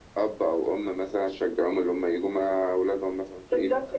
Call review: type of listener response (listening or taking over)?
taking over